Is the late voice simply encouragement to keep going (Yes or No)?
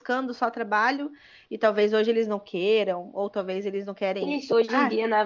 No